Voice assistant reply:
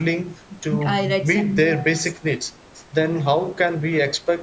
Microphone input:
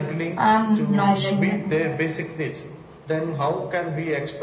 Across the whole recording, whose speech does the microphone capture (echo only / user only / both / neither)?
both